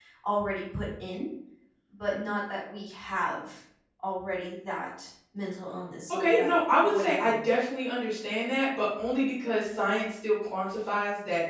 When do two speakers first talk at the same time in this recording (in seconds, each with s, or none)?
6.1 s